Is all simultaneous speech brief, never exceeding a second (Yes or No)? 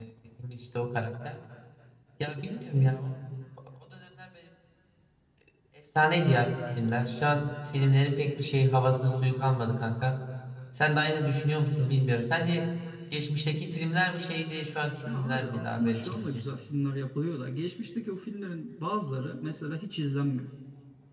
No